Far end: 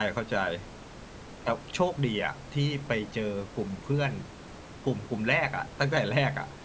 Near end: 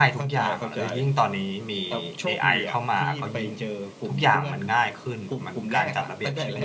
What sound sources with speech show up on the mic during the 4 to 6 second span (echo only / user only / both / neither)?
both